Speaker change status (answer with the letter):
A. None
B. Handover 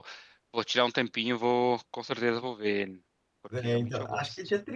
B